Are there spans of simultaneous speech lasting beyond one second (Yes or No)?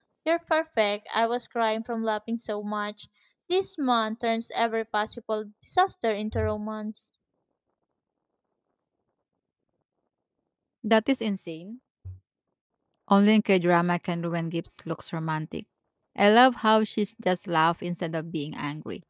No